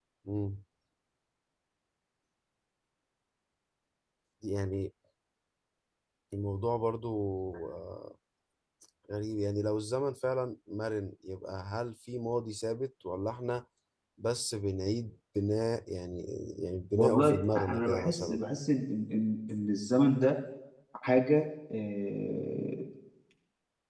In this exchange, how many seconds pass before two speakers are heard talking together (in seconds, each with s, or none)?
17.0 s